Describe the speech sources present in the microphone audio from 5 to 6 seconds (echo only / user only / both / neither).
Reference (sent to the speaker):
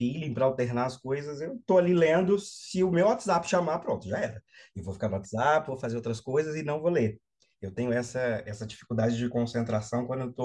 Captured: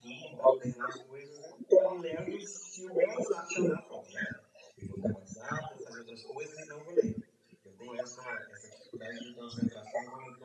echo only